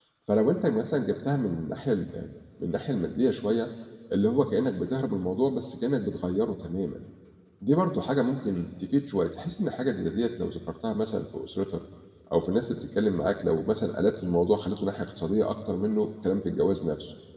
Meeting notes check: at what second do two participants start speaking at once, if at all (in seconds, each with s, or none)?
none